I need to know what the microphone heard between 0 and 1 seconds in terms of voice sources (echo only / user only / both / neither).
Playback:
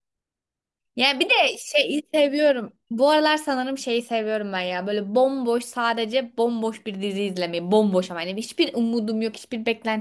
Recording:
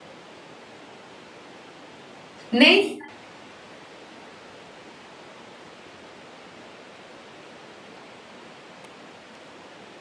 neither